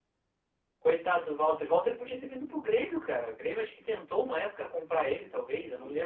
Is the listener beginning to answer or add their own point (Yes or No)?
Yes